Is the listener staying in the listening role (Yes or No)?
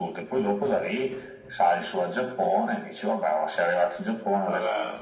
Yes